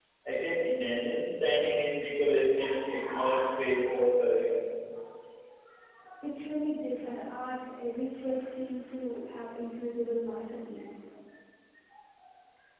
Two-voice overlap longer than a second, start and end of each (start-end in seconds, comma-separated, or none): none